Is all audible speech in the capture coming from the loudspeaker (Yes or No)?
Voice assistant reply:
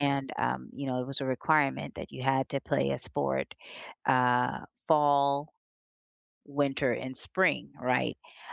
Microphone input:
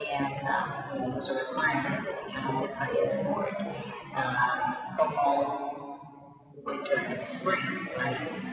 Yes